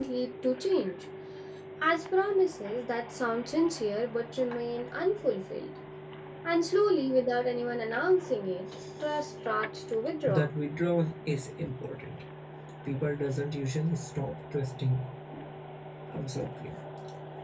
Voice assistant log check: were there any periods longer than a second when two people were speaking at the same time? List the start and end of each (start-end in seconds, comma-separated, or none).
none